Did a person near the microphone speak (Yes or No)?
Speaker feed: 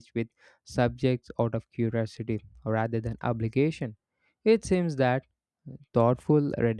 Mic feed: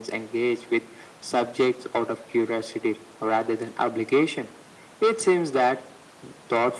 No